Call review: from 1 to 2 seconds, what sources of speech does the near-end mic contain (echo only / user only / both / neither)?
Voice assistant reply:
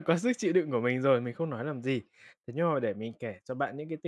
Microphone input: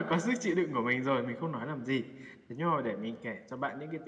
echo only